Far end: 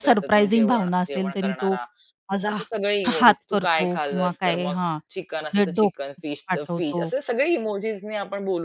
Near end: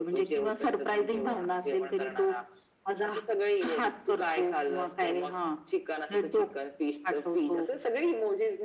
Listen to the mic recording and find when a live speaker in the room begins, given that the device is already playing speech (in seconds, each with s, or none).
none